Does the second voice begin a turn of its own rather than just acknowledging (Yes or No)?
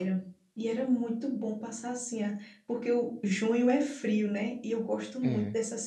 No